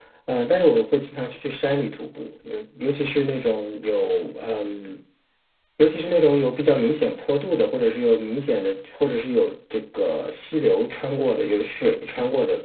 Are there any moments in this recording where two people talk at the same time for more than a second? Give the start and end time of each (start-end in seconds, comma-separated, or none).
none